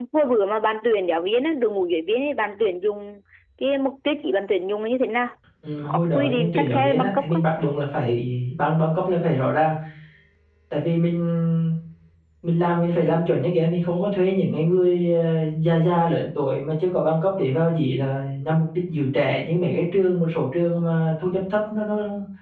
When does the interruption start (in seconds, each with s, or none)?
5.9 s